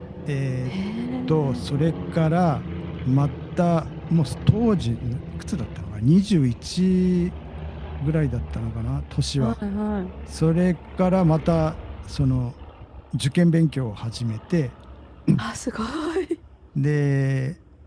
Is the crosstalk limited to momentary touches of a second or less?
Yes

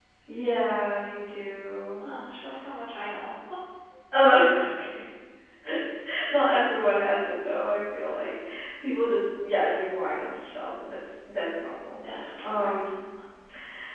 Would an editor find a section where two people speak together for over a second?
No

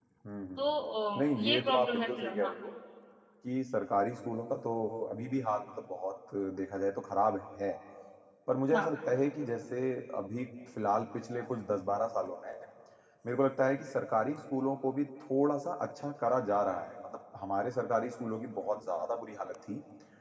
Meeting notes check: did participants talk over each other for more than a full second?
Yes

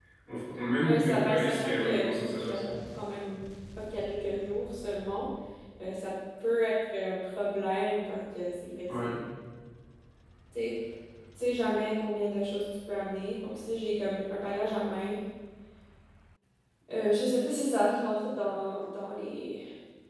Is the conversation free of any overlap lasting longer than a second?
No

